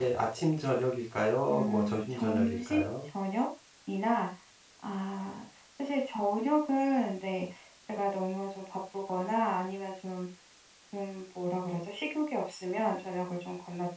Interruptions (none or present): present